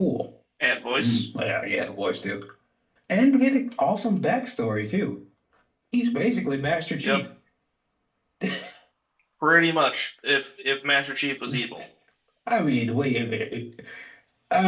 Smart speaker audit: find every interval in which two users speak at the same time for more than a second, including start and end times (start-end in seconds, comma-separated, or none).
none